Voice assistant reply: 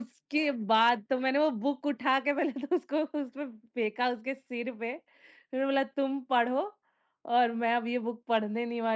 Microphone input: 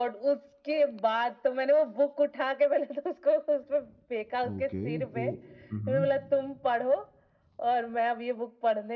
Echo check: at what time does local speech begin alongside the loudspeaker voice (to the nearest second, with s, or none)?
4 s